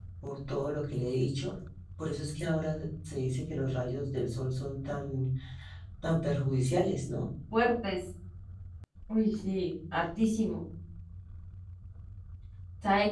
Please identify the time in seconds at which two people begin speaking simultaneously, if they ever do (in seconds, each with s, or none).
none